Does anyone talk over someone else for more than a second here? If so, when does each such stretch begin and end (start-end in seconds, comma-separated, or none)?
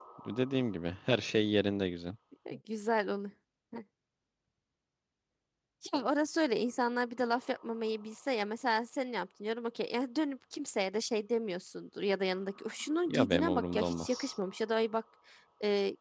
13.1-14.3